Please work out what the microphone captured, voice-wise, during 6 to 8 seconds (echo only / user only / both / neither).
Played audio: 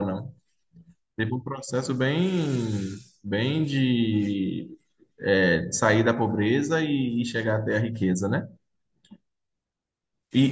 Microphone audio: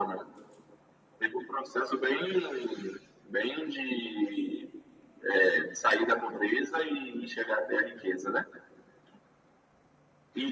echo only